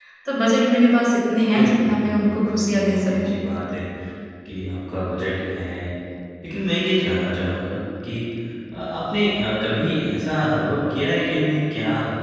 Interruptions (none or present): present